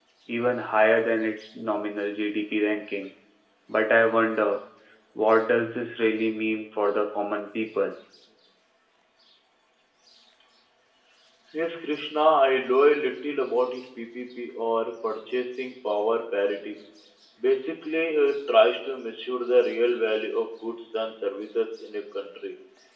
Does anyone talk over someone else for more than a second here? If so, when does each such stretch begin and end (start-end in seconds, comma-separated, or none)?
none